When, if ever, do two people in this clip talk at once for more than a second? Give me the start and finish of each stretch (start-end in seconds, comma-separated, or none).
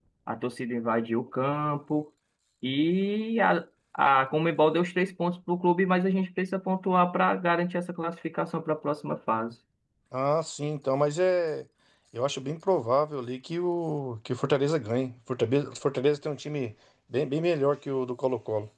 none